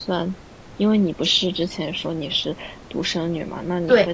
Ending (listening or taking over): listening